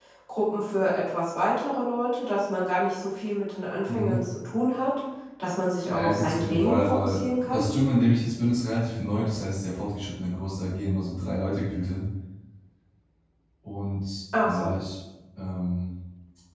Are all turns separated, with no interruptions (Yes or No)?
No